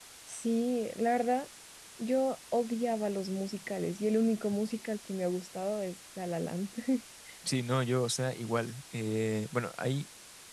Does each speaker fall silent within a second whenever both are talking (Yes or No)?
Yes